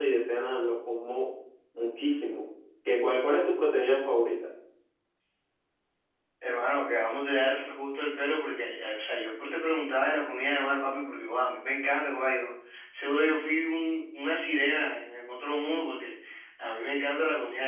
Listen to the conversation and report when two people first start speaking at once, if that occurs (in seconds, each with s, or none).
none